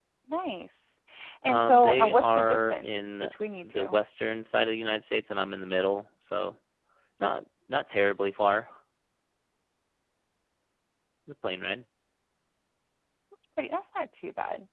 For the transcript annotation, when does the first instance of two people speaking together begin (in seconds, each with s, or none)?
1.5 s